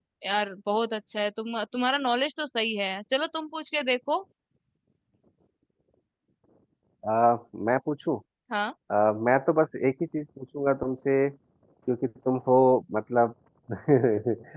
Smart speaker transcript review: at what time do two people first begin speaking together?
none

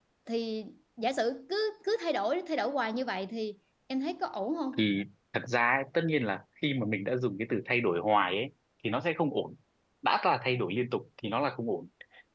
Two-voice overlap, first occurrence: none

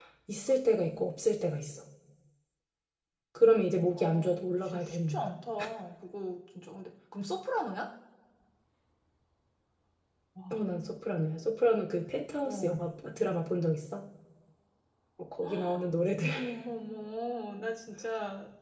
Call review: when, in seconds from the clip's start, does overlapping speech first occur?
4.0 s

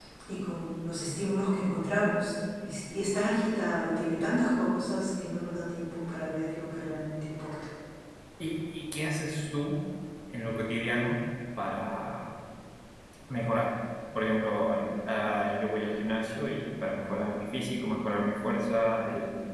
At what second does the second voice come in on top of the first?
none

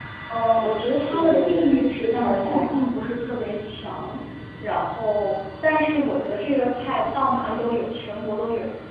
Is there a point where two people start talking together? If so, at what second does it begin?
0.8 s

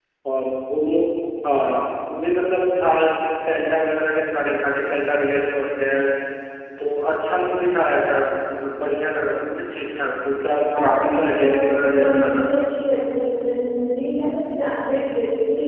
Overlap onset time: 10.7 s

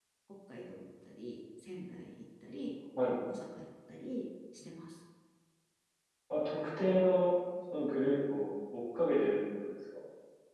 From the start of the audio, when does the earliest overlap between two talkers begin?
none

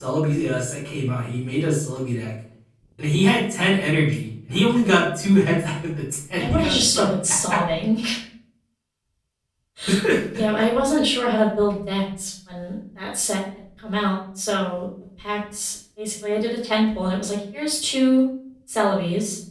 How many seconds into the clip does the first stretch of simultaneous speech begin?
6.4 s

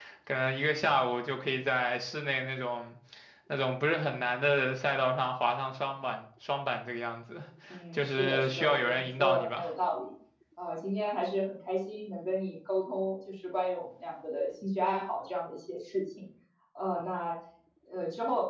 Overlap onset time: 7.9 s

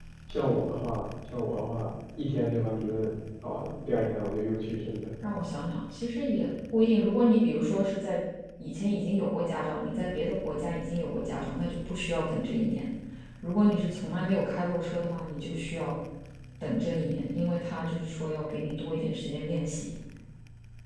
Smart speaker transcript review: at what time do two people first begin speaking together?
none

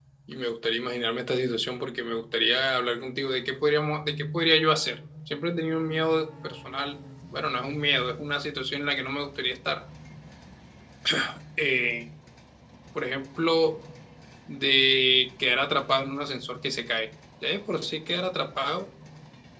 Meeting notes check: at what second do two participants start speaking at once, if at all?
none

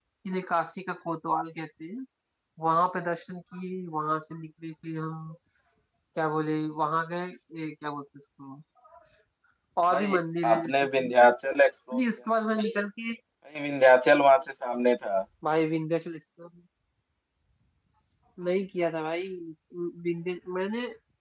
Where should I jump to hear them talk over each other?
9.9 s

